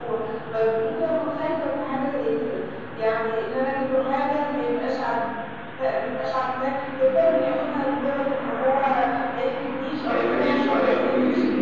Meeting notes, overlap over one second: present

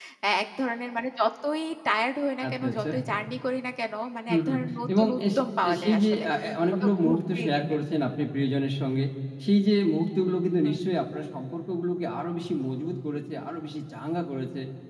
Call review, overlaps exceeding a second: present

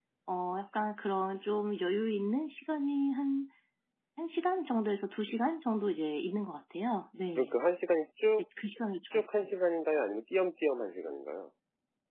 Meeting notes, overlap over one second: none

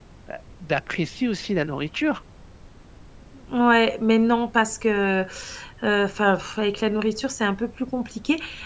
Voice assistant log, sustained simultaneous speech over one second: none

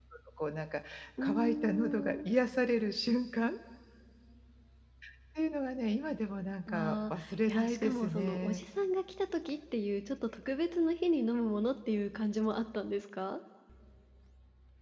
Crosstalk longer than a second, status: present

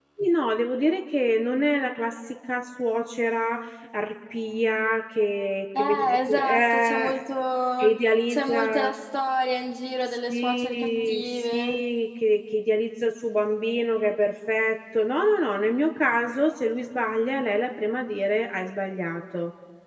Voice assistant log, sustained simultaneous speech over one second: present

